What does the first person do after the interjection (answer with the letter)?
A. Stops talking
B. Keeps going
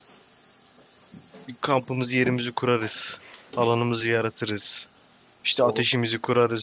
B